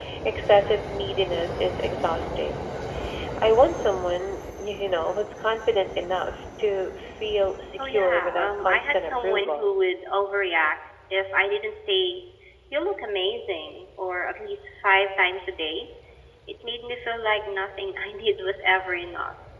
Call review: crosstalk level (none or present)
present